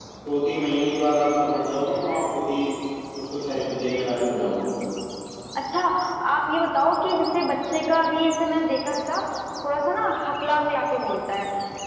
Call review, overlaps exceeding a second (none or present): none